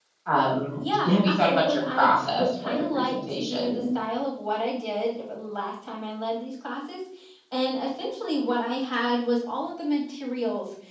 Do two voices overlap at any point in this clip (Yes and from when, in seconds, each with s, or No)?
Yes, from 0.8 s